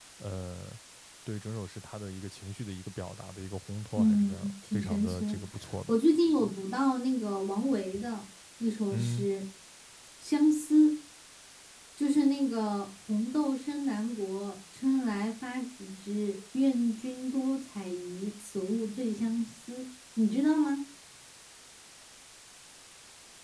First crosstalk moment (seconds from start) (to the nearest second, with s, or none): 4 s